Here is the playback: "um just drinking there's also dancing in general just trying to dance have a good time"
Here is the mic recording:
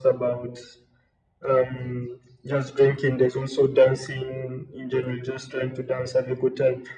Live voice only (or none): none